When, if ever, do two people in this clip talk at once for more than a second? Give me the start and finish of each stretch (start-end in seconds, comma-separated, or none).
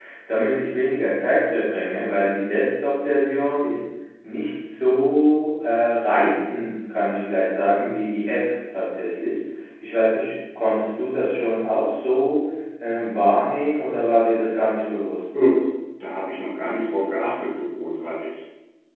none